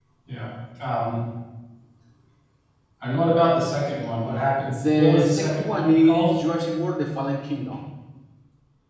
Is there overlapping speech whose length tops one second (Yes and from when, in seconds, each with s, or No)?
Yes, from 4.8 s